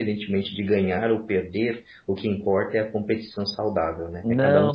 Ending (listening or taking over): taking over